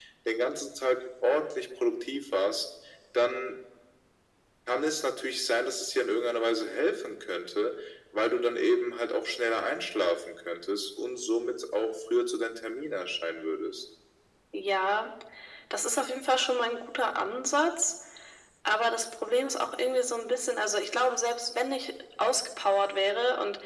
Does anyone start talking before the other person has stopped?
No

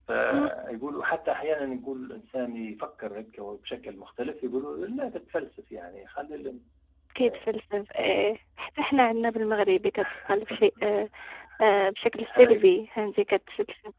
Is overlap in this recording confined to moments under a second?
Yes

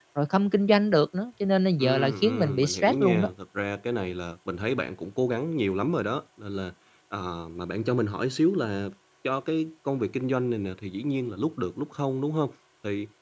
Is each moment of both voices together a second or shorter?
No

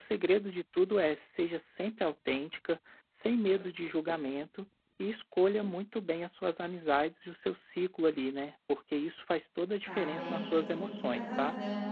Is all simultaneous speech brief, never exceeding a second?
No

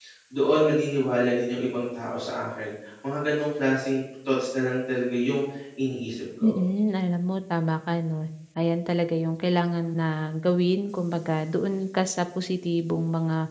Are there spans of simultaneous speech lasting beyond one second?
No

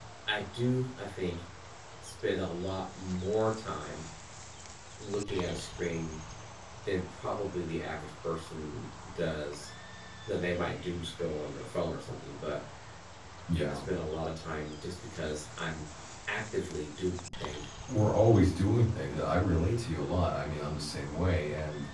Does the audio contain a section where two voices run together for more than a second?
No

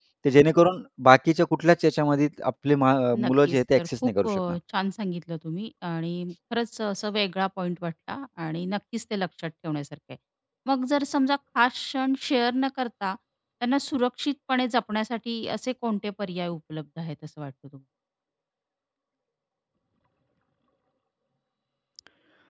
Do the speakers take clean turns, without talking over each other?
No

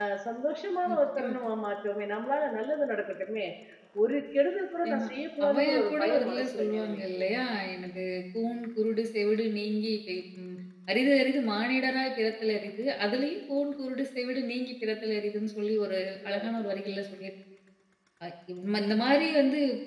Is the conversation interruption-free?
No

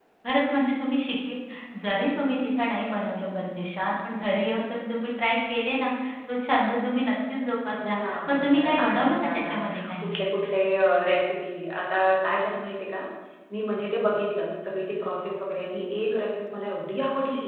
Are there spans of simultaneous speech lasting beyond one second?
Yes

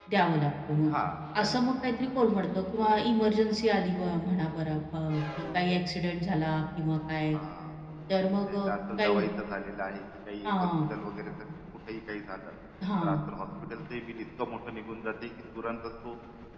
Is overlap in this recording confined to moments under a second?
Yes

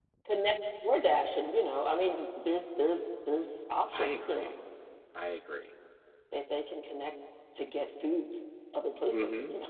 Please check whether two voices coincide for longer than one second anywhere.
No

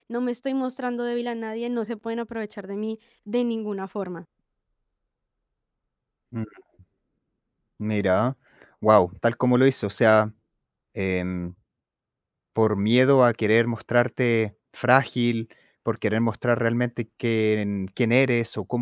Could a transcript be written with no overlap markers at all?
Yes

